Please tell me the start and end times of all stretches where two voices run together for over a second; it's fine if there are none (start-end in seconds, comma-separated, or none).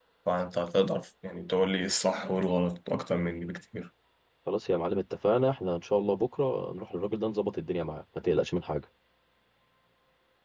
none